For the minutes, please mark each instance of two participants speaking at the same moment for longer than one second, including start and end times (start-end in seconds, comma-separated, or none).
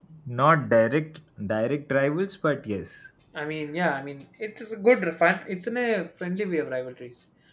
none